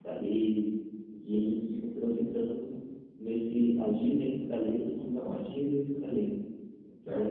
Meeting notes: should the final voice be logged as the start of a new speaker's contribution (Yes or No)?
No